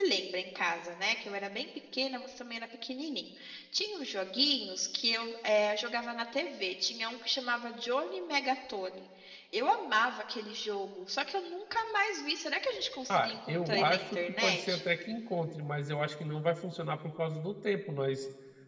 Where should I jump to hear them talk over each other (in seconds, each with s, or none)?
13.0 s